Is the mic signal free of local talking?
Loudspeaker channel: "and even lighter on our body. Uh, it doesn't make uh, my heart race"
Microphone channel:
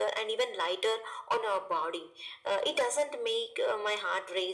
Yes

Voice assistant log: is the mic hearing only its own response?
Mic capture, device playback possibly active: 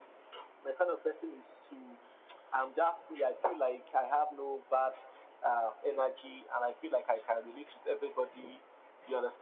Yes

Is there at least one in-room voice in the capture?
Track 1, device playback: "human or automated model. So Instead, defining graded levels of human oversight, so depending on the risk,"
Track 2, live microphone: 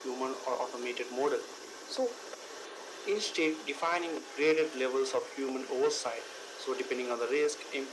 No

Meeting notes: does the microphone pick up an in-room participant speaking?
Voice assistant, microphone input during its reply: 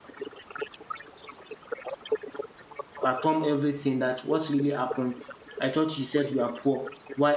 Yes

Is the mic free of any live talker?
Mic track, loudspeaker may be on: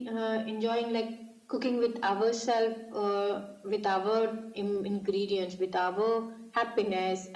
Yes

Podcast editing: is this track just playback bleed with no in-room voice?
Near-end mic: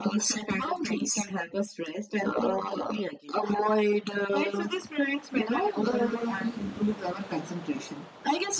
Yes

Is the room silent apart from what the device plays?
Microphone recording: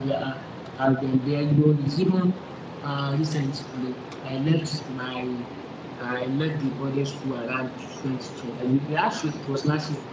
Yes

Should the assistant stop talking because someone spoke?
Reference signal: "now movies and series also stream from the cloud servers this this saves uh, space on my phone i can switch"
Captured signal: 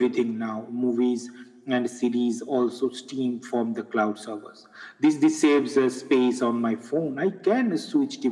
No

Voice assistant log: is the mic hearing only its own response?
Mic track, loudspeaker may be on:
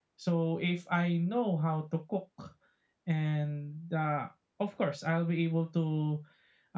Yes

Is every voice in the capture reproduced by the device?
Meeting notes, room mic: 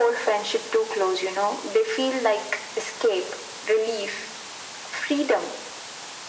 Yes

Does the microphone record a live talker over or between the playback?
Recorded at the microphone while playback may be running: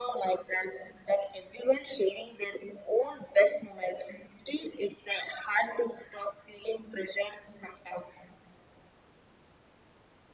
No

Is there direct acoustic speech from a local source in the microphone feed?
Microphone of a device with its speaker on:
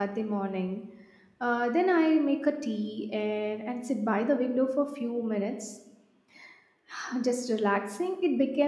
Yes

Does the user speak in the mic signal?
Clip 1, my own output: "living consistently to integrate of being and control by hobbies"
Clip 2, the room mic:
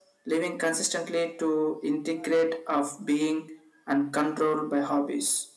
No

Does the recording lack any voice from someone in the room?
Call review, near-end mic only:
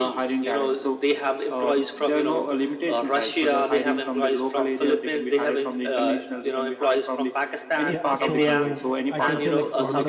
No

